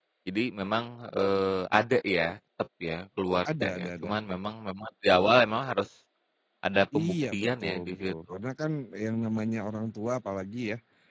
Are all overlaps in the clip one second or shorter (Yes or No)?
No